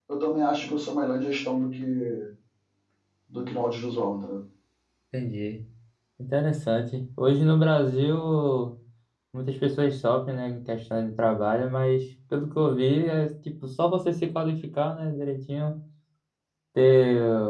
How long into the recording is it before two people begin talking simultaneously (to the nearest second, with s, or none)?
none